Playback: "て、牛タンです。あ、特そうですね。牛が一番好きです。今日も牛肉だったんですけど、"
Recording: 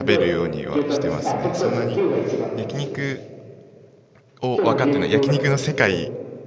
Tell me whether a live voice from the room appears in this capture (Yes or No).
Yes